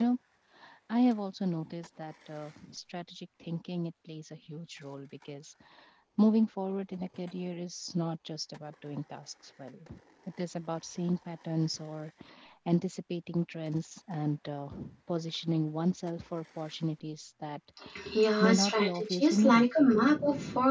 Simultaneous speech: Yes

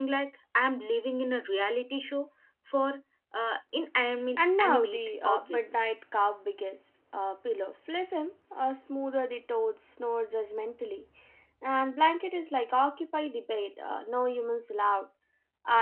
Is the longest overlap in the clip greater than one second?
Yes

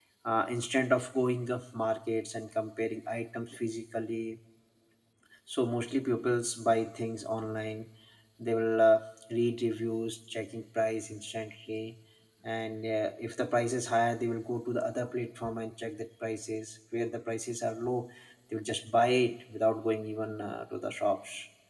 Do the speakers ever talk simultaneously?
No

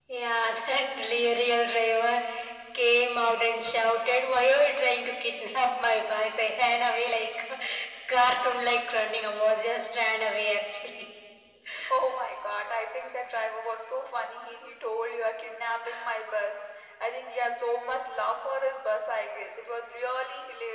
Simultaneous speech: No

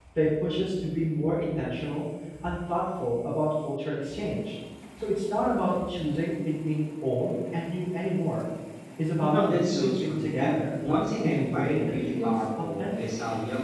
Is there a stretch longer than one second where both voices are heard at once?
Yes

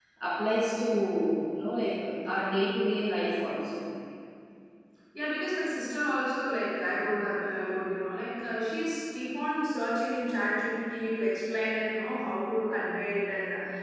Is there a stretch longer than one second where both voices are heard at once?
No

